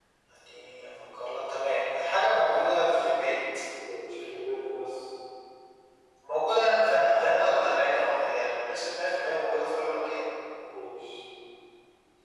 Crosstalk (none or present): none